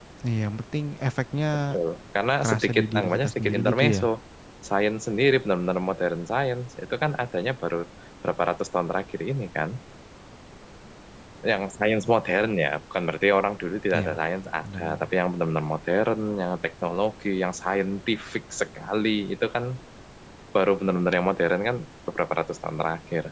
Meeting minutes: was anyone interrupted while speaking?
Yes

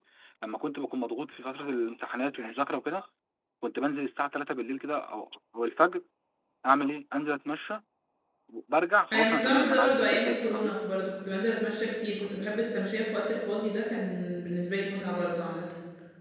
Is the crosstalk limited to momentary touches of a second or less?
No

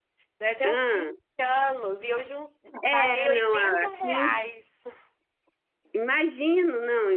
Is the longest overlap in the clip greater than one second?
Yes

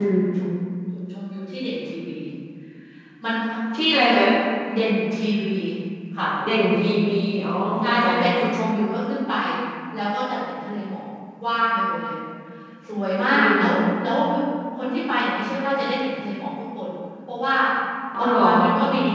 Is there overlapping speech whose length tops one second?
No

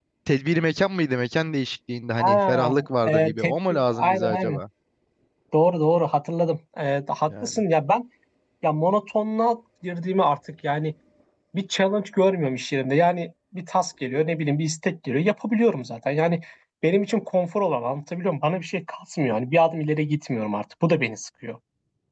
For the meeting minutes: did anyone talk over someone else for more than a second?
Yes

